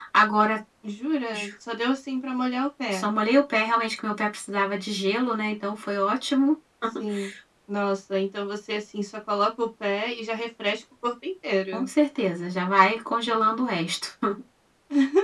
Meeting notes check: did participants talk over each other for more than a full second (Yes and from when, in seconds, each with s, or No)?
No